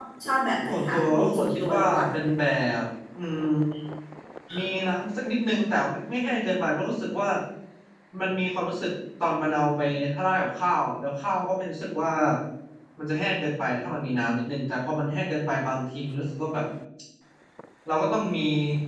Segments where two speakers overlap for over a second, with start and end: 0.7-2.0

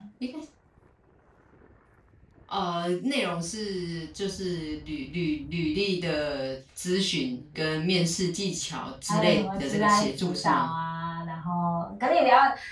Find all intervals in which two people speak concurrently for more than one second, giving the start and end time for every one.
9.1-10.7

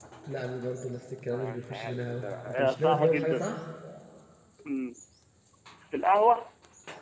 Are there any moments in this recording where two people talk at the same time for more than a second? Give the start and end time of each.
1.3-3.5

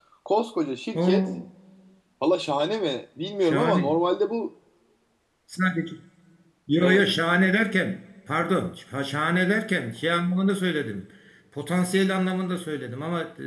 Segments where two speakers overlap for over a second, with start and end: none

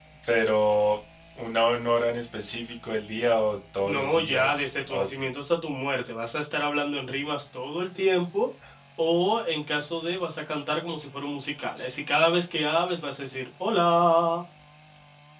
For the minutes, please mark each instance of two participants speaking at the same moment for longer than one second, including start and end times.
3.9-5.1

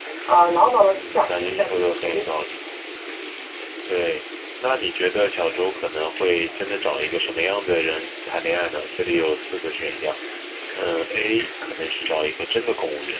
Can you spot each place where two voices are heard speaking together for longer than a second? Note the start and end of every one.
0.8-2.5

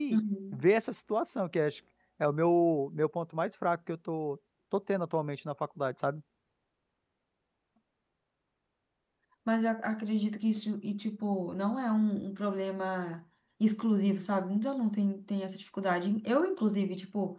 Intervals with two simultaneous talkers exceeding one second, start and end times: none

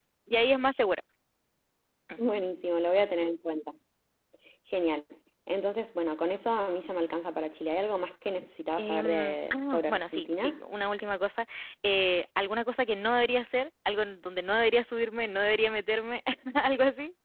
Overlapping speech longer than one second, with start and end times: 8.8-10.6

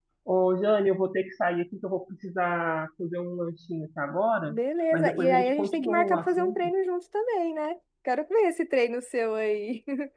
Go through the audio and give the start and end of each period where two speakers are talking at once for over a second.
4.9-6.7

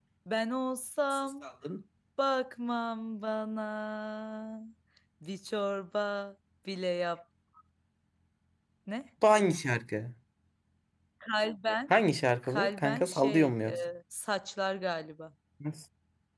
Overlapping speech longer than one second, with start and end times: 12.5-13.8

